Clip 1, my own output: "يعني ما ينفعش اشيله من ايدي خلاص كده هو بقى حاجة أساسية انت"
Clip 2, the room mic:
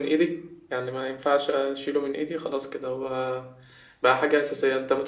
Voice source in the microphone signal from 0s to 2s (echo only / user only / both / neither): echo only